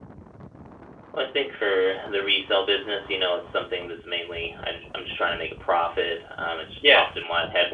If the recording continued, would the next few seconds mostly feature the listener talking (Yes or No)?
No